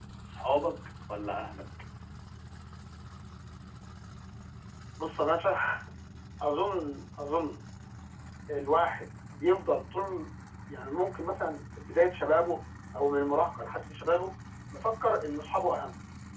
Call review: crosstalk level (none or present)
none